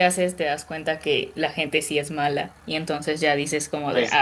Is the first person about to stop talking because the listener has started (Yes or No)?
Yes